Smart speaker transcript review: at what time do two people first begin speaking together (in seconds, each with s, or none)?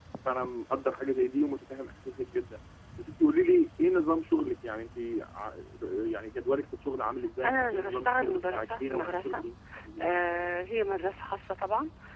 7.4 s